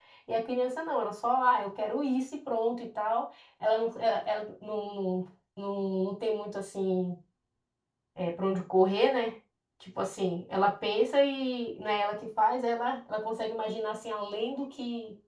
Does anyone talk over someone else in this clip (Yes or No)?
No